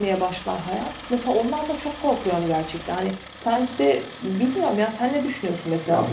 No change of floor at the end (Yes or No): No